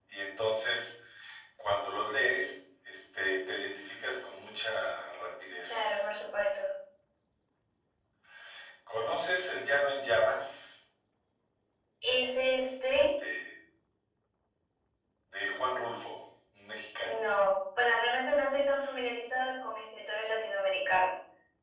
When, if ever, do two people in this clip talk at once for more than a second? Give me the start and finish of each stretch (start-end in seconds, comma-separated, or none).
none